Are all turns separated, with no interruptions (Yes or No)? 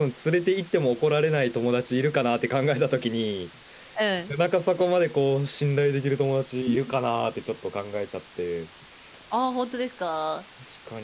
Yes